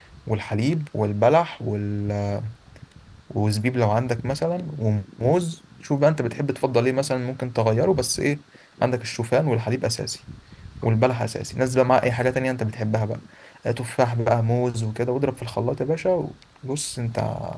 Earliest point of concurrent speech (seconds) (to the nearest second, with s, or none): none